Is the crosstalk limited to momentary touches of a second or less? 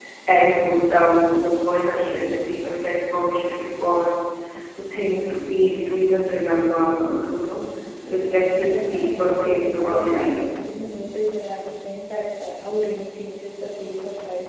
No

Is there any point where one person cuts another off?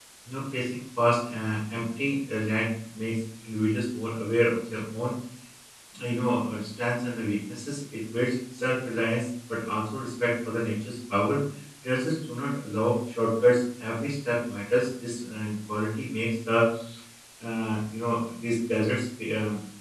No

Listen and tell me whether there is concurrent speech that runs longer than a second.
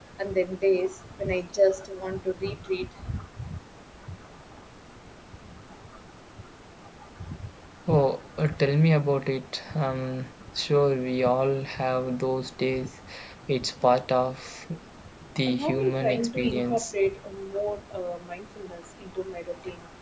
Yes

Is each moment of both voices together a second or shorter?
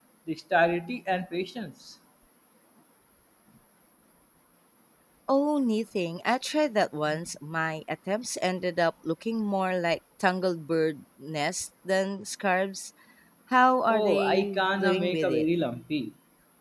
No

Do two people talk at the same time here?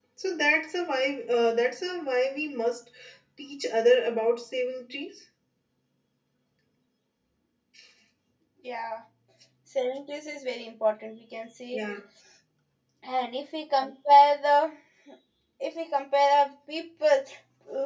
No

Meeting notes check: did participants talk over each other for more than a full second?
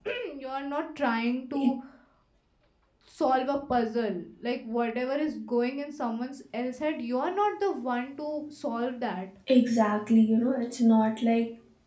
No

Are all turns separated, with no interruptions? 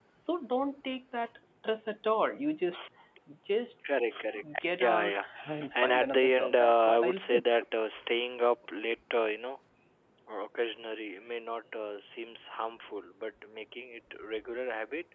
No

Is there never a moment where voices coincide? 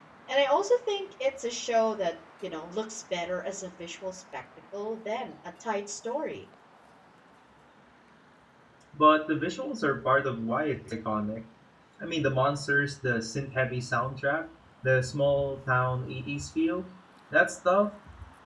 Yes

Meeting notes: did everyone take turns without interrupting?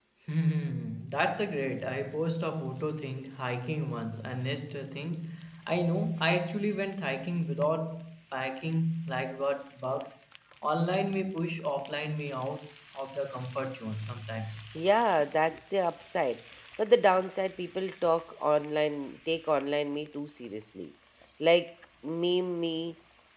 Yes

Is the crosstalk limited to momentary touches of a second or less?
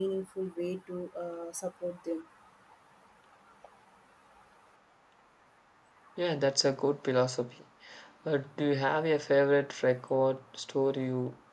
Yes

